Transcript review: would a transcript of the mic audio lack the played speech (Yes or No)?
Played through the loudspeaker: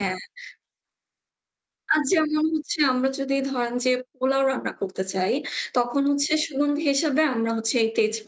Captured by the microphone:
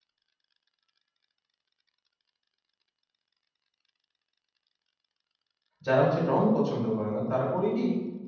Yes